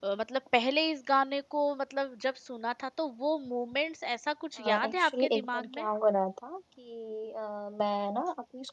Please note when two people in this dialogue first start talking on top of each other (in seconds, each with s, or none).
4.6 s